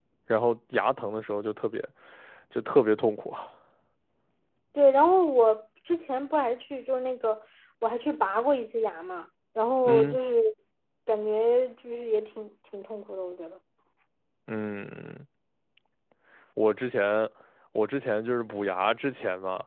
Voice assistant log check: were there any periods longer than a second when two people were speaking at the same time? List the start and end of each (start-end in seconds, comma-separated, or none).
none